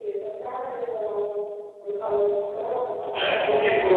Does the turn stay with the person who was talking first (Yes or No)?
No